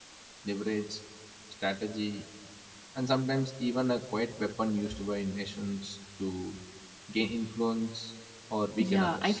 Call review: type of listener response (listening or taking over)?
taking over